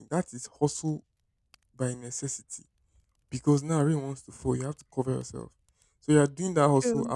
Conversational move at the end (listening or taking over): listening